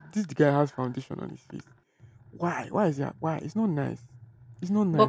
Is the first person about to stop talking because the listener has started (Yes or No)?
Yes